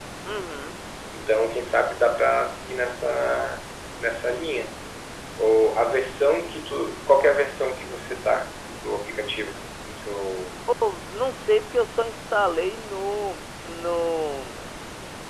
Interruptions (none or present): none